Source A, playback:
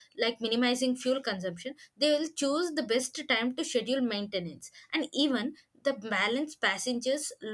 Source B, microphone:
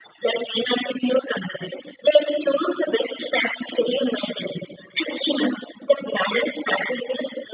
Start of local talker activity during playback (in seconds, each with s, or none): none